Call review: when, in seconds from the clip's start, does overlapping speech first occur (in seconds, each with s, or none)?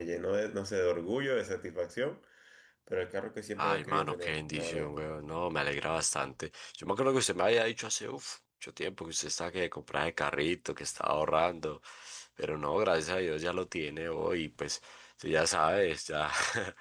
3.6 s